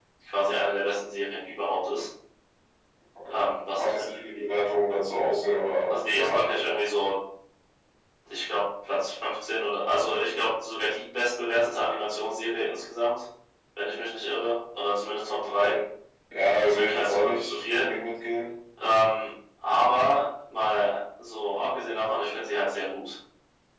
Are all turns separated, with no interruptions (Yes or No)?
No